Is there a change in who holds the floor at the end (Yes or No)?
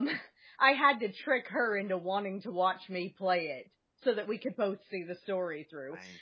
No